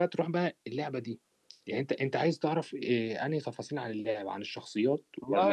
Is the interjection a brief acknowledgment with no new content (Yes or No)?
No